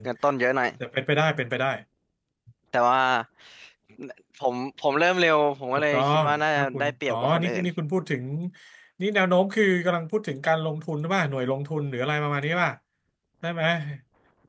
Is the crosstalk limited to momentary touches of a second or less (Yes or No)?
No